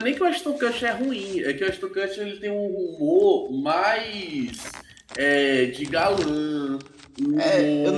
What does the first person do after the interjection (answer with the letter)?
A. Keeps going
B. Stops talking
B